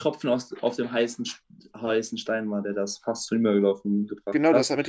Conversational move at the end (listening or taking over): taking over